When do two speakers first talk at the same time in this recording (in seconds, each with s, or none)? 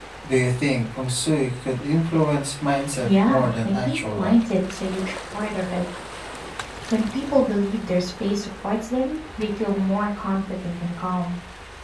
3.0 s